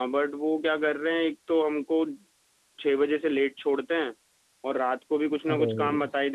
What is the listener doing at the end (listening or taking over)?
listening